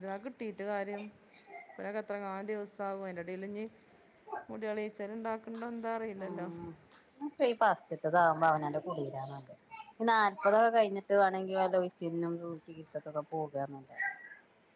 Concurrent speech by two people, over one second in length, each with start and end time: none

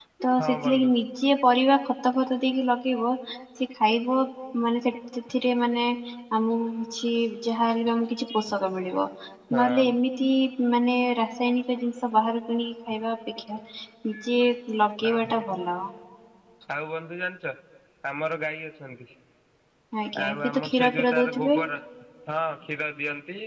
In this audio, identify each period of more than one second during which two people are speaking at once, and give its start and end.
20.2-21.6

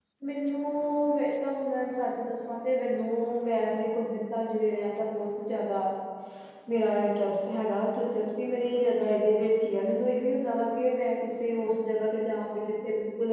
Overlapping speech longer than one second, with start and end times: none

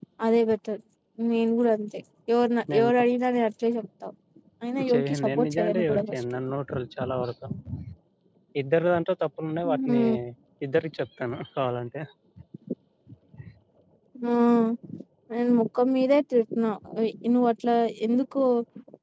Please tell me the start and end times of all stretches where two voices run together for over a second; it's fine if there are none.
4.9-6.2

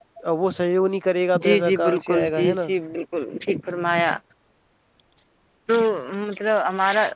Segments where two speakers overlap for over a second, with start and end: 1.4-2.6

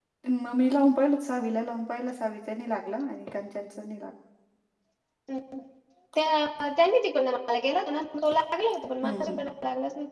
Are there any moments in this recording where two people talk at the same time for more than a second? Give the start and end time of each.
none

